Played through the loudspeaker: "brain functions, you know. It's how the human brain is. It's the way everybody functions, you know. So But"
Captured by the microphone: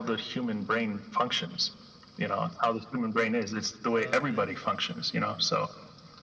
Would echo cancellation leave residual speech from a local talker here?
Yes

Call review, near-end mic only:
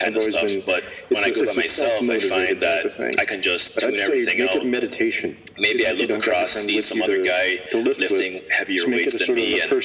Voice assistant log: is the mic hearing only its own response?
Yes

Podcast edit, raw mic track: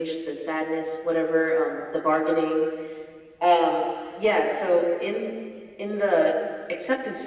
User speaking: No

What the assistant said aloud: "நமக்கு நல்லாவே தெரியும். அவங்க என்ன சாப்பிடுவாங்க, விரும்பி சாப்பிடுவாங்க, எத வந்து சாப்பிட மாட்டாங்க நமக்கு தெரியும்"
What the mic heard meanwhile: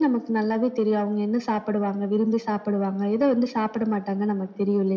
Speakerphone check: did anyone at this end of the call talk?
No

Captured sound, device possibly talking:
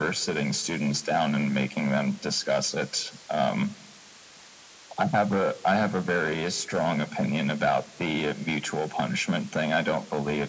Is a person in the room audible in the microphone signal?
No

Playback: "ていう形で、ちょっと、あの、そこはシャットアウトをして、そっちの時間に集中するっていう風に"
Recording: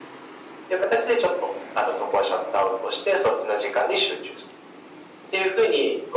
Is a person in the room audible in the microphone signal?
No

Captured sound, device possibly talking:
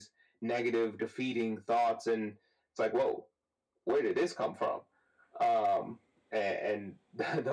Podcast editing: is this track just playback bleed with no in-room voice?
Yes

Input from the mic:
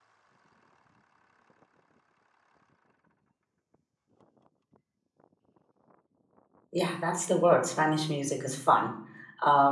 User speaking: Yes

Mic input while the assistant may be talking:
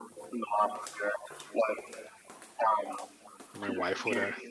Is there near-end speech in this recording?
Yes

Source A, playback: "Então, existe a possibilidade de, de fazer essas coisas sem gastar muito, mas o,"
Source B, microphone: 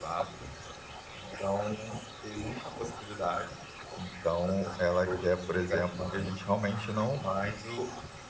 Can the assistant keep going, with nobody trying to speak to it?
No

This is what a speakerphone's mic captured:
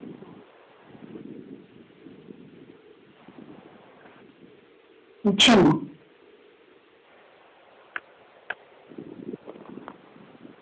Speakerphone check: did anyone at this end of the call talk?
Yes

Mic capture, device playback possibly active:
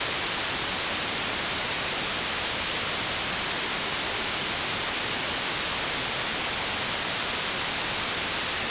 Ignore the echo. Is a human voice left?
No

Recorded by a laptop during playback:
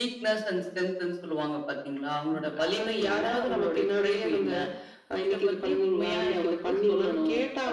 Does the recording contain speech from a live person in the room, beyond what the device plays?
No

